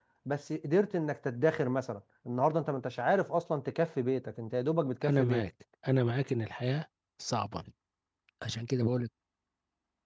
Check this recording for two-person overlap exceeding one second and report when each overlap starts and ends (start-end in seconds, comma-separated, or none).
none